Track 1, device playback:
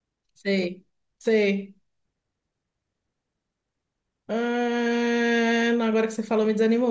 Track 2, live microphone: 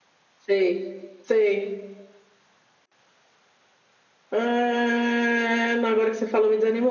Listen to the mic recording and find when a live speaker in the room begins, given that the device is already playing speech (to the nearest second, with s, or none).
none